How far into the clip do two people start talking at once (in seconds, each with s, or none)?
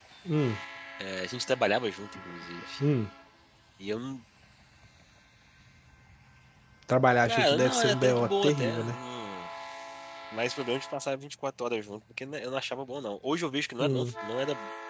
7.2 s